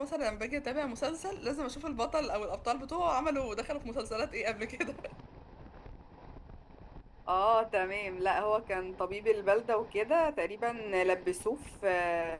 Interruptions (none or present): none